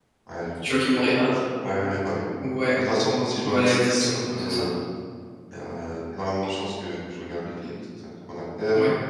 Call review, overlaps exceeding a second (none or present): present